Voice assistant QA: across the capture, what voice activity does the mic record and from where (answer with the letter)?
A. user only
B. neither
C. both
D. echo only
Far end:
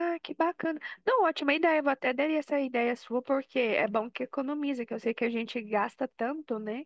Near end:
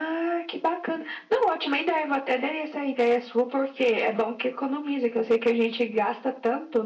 D